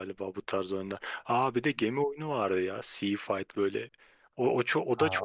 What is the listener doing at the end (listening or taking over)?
taking over